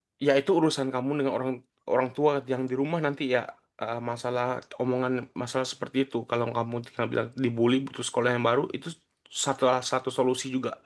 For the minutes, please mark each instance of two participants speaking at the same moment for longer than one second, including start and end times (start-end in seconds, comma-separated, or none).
none